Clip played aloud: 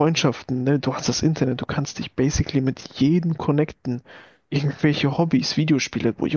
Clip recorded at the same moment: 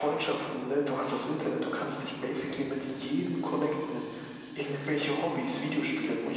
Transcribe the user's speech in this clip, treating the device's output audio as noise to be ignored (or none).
none